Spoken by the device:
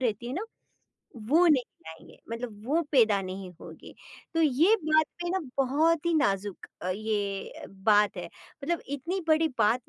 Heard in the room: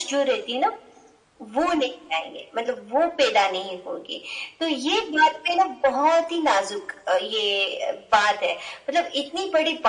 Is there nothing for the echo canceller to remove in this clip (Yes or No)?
No